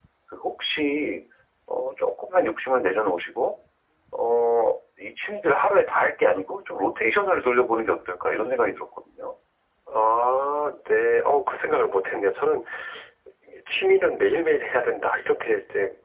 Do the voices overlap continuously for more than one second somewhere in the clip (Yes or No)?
No